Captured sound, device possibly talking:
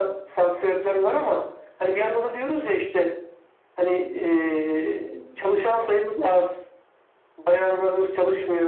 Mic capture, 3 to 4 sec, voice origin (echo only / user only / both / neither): echo only